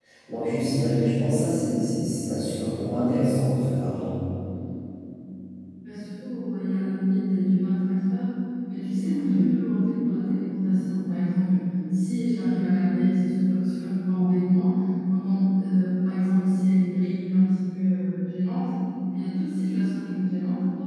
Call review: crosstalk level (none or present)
none